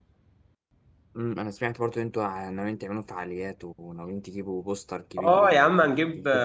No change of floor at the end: No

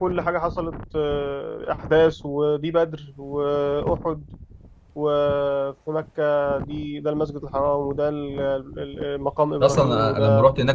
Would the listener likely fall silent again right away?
No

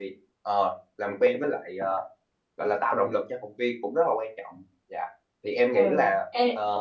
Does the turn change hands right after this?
Yes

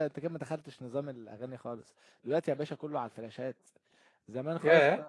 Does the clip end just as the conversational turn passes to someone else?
No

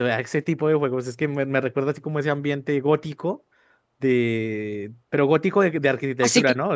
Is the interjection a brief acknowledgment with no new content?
No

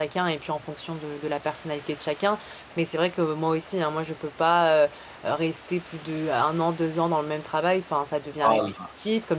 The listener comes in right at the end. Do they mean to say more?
No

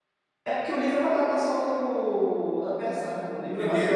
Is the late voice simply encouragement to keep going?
No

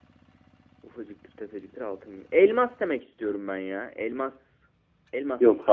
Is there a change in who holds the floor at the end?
Yes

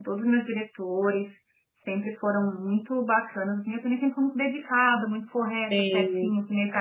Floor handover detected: No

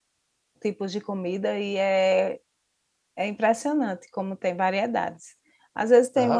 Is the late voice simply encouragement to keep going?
Yes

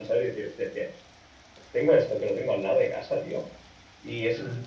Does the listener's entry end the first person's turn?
No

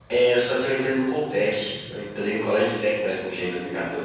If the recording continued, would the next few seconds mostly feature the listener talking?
No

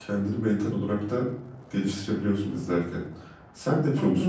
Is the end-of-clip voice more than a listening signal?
Yes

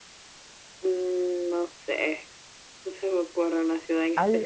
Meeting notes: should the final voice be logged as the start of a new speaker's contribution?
Yes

